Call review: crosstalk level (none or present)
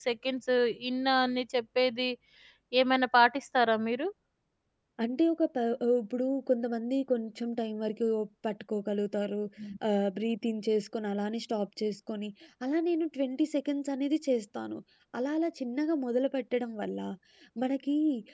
none